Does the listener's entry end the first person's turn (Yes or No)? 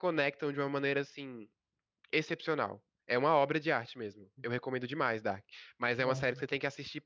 No